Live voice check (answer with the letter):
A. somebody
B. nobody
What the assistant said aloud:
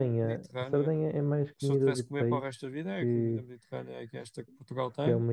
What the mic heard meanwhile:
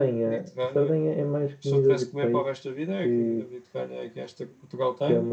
B